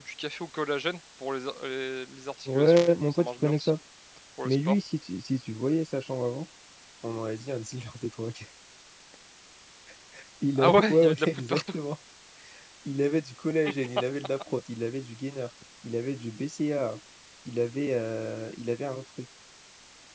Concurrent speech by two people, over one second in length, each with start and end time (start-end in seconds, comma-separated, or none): 2.5-3.7, 10.6-11.8